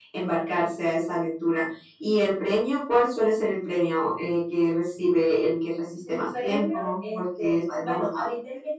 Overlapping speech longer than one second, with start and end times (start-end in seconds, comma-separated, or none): 6.1-8.2